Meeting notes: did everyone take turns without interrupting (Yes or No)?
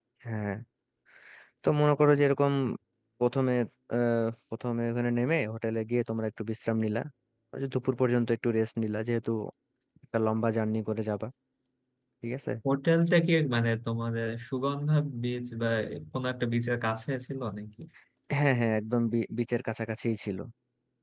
Yes